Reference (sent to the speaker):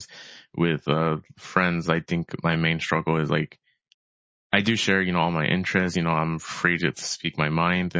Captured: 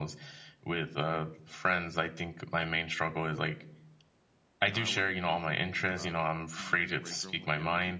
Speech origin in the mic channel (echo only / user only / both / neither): both